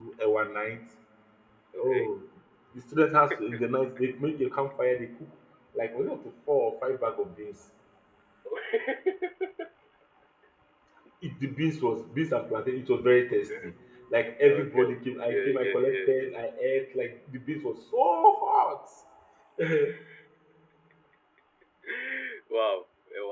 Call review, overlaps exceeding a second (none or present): present